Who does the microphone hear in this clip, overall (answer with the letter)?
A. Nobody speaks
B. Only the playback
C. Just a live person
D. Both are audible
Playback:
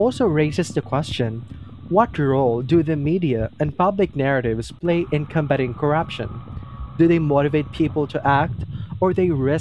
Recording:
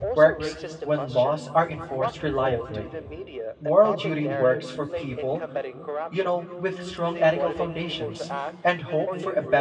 D